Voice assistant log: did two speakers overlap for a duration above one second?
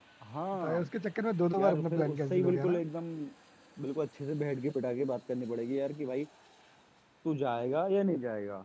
Yes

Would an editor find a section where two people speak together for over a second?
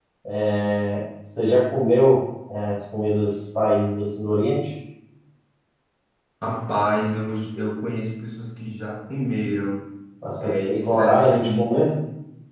Yes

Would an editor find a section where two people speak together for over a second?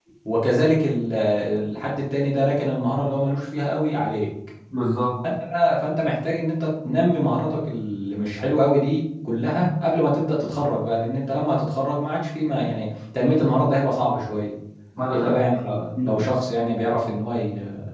No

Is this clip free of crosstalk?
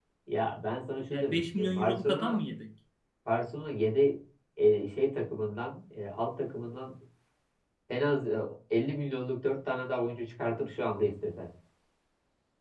No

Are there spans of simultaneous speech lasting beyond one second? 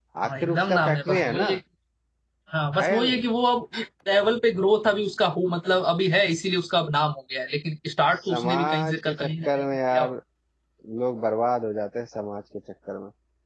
Yes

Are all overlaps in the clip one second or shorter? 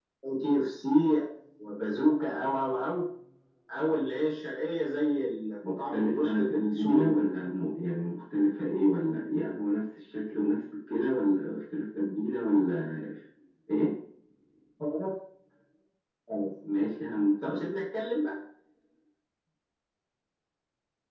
No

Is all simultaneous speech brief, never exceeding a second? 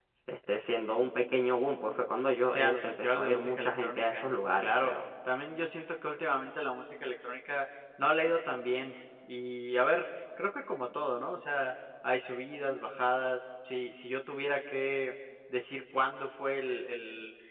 No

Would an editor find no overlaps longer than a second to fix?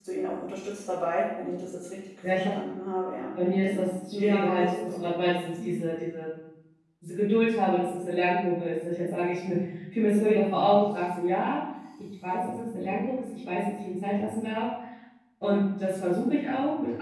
No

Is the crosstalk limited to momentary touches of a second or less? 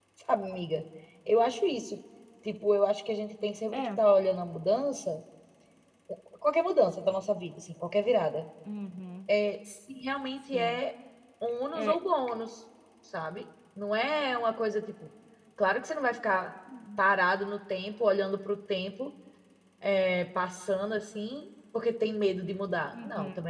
Yes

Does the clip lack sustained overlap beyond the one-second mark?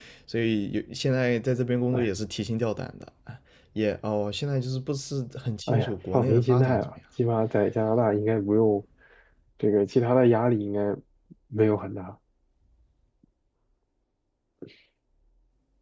No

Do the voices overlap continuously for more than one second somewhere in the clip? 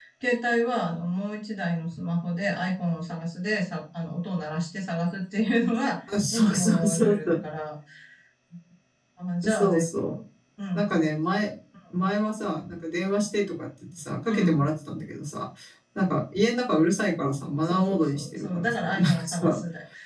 Yes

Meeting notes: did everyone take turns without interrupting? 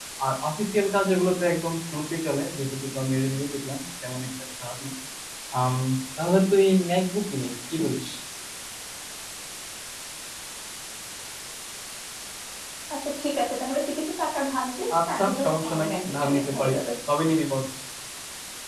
No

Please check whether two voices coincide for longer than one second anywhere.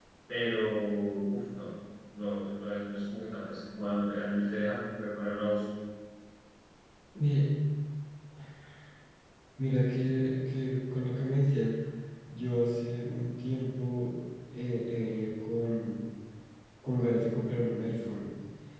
No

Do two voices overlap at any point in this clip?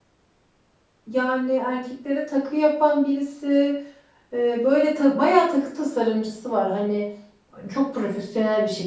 No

